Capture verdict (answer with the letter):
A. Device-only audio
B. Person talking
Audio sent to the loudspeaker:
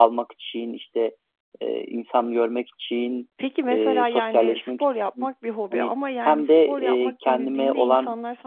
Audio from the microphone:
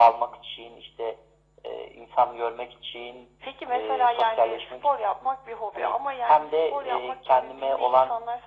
A